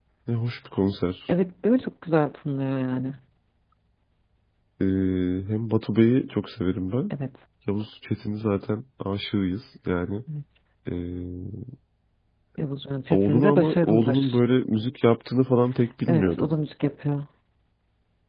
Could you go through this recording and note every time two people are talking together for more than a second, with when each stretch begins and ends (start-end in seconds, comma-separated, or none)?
13.1-14.4